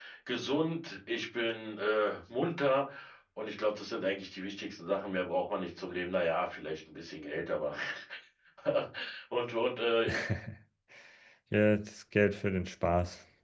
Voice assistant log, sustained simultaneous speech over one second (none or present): none